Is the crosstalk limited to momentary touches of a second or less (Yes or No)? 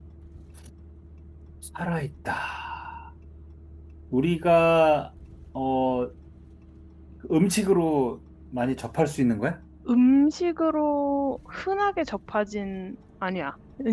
Yes